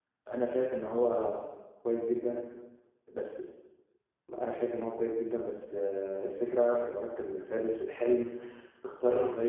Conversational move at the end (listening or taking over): listening